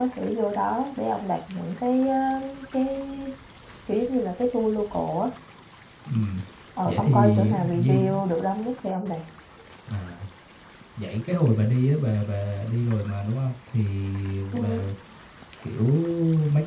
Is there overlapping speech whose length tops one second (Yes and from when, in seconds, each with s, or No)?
Yes, from 6.8 s